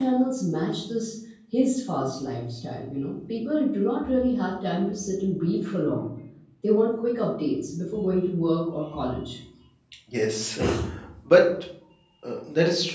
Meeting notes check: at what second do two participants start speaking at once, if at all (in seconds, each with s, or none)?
none